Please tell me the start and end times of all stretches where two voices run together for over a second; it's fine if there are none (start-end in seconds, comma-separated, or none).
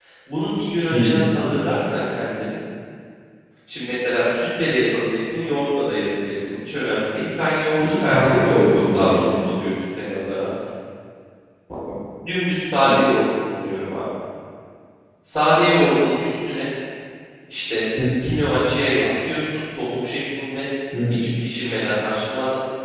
7.8-9.3